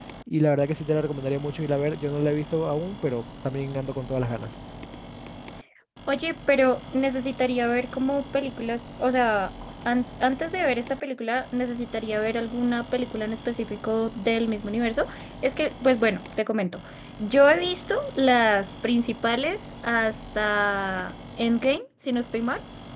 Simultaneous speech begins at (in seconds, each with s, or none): none